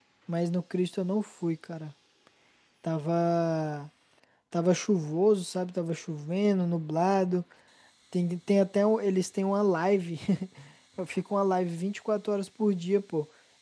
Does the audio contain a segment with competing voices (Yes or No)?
No